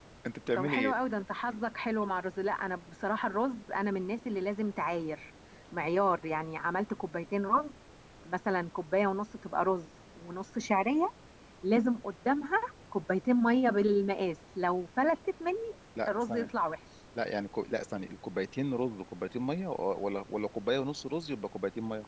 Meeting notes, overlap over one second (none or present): none